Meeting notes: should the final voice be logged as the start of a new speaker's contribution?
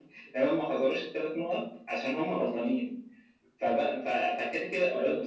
No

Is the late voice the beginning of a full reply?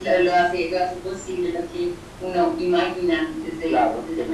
Yes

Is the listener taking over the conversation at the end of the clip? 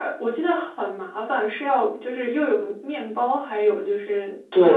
Yes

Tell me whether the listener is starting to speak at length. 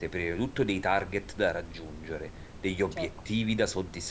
No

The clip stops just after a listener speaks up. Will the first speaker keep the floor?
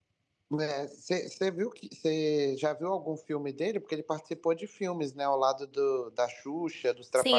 No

